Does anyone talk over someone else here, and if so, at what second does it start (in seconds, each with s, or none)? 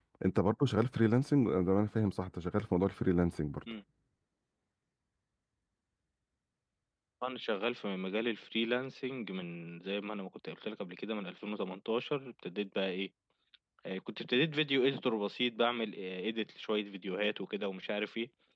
none